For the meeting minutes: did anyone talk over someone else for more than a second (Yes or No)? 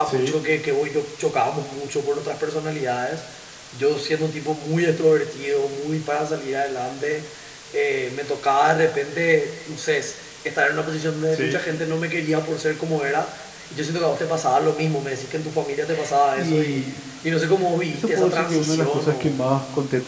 Yes